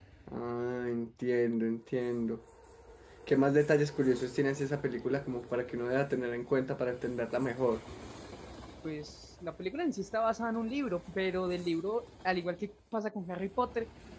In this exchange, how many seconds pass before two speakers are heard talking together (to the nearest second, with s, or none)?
none